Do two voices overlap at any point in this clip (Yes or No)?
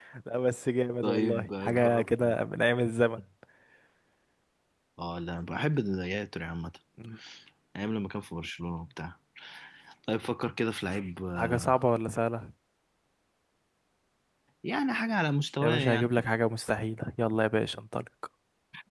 Yes